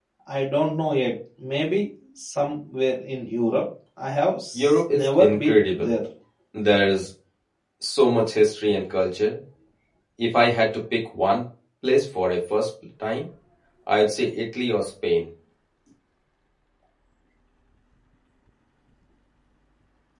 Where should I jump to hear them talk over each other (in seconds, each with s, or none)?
4.5 s